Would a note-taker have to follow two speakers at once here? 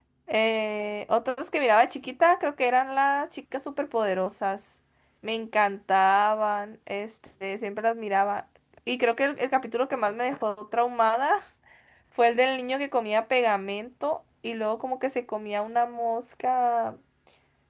No

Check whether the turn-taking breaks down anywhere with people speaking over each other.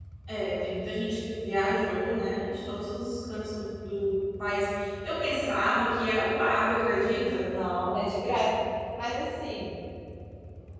No

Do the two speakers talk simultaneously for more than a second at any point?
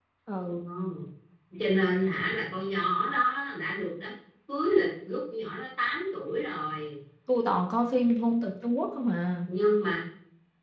No

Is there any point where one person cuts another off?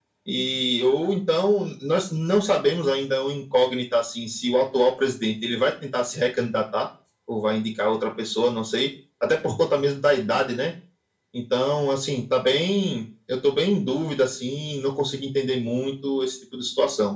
No

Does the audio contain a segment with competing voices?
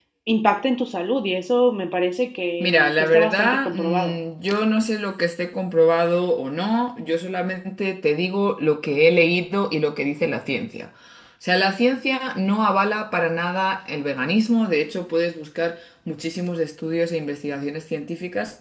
Yes, from 2.6 s

